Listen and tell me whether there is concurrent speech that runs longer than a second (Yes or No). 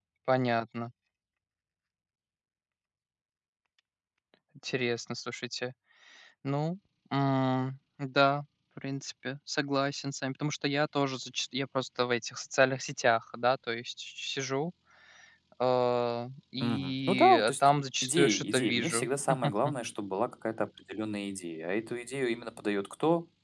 Yes